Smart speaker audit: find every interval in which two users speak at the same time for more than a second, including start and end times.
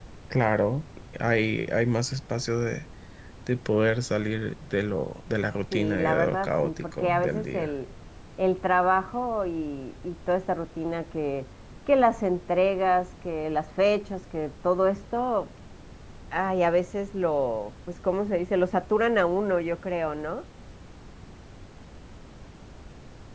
5.7-7.7

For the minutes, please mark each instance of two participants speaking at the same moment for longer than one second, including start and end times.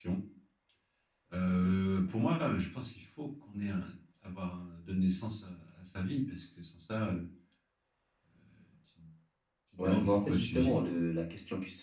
9.8-11.0

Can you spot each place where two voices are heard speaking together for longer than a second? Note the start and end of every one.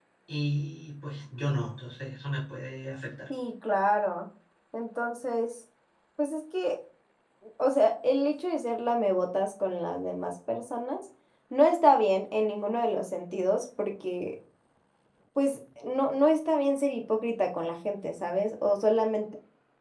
none

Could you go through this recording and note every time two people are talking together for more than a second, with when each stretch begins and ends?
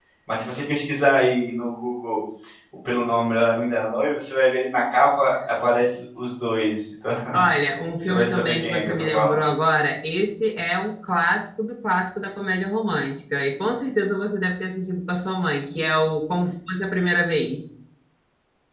8.0-9.4

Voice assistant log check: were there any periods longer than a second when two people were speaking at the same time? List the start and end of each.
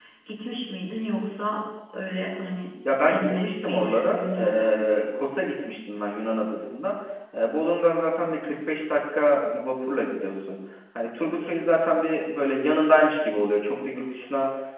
3.0-4.9

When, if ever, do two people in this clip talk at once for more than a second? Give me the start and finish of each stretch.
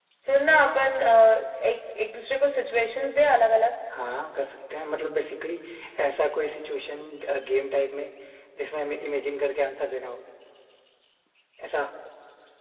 none

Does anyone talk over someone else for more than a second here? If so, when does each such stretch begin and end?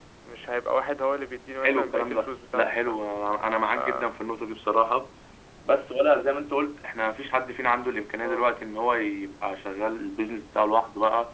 1.6-3.0

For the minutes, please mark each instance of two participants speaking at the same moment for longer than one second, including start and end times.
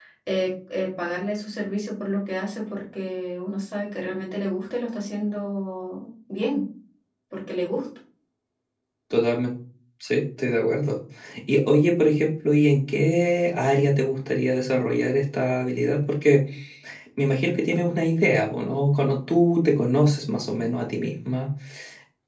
none

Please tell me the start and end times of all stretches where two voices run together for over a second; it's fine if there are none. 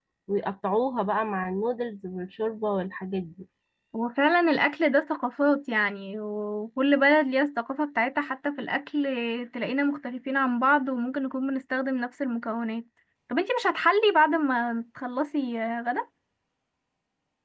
none

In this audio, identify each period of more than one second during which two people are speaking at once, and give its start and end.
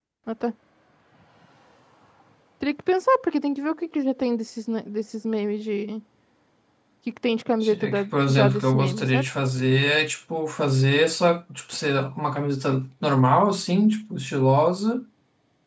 7.6-9.3

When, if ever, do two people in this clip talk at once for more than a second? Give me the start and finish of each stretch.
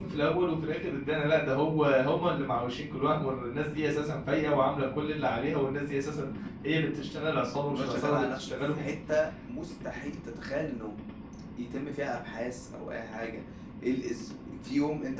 7.7-8.9

